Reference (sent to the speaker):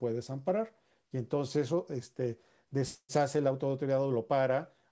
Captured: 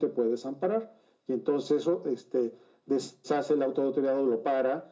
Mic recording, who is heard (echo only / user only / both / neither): echo only